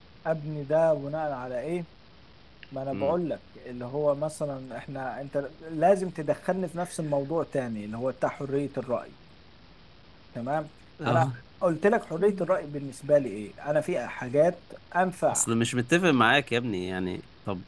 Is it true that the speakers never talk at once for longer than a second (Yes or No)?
Yes